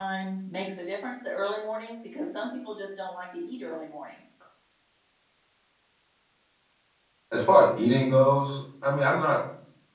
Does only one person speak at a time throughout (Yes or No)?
Yes